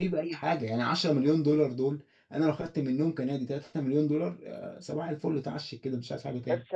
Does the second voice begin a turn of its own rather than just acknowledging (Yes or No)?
Yes